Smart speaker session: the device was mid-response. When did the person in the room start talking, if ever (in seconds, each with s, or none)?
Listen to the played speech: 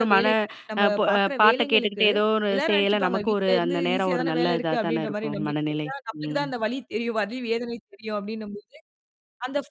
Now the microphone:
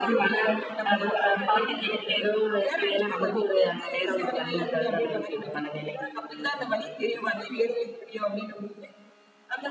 none